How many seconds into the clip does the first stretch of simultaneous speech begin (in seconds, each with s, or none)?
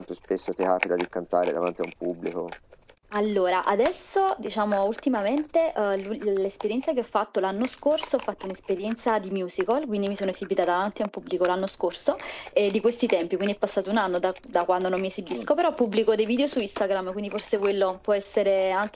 none